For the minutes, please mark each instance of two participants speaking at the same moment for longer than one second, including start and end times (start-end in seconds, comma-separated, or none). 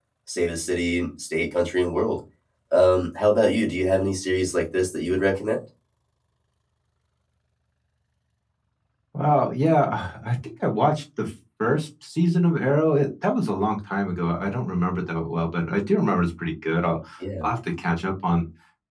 none